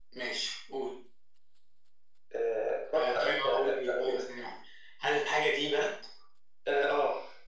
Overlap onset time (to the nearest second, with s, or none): 3 s